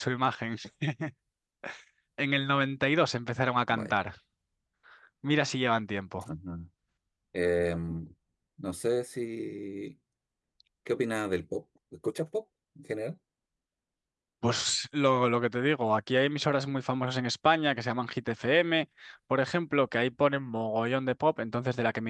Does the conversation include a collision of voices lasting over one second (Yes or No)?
No